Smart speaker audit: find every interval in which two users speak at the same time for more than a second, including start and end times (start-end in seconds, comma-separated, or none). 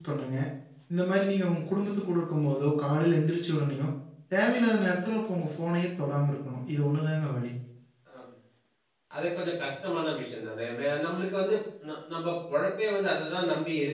none